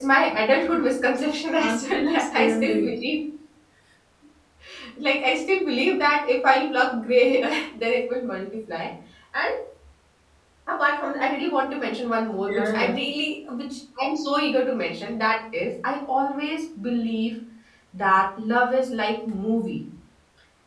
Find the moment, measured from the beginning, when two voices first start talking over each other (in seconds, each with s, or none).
1.6 s